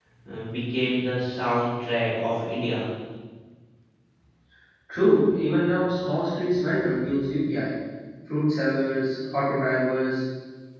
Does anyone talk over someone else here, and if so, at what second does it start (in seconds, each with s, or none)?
none